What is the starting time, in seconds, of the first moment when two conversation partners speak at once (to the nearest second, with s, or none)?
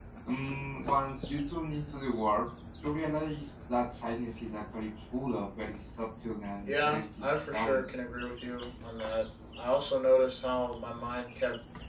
7 s